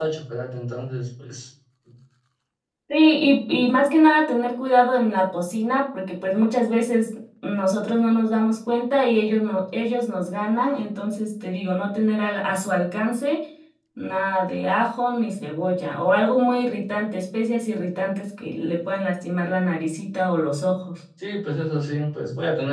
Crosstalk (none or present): none